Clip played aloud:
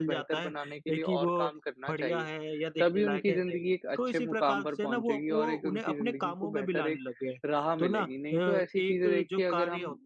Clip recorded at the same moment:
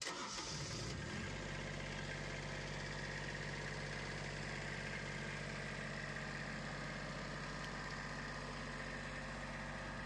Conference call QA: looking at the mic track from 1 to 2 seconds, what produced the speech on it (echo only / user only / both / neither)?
neither